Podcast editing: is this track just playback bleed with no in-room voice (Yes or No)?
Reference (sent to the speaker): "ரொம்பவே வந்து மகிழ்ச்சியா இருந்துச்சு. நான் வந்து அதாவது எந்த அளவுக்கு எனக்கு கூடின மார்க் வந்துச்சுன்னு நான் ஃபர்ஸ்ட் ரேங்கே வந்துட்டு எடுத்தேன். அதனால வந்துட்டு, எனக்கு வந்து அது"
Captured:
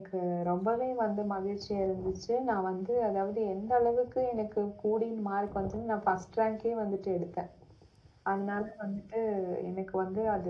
Yes